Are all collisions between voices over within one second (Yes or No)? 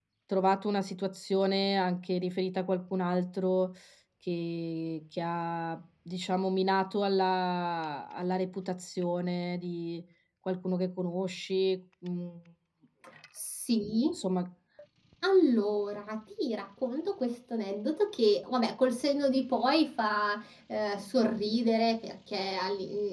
Yes